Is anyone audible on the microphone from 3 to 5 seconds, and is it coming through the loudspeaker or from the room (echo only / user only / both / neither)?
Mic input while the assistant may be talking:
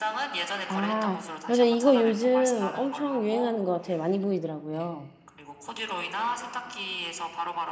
both